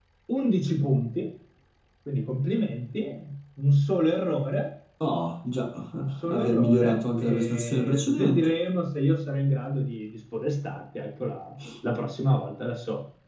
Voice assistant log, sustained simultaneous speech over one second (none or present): present